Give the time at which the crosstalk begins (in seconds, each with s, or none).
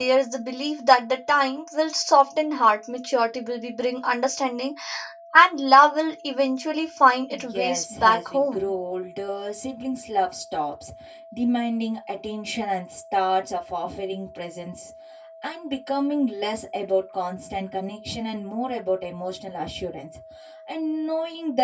7.3 s